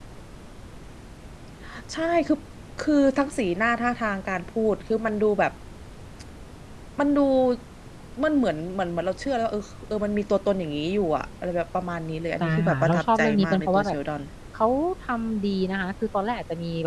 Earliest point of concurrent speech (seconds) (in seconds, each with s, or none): 12.4 s